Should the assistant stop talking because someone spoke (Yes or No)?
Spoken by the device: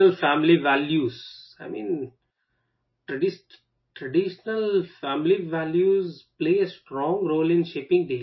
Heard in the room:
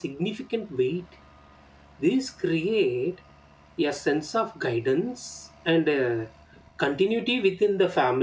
Yes